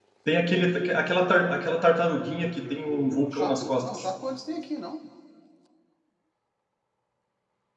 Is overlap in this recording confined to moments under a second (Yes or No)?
No